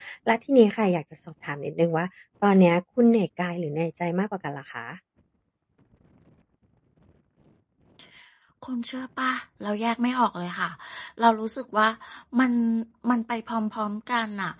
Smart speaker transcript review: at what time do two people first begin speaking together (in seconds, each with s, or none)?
none